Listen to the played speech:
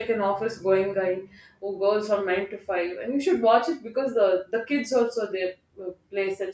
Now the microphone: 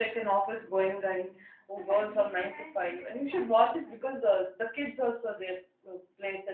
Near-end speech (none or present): present